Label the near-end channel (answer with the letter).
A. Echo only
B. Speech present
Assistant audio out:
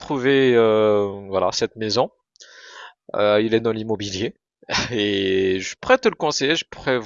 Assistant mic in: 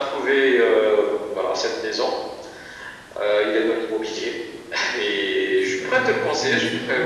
B